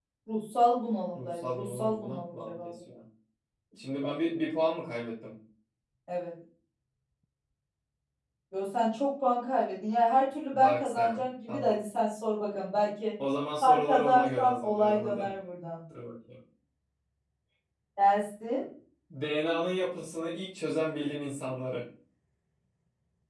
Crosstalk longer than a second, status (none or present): present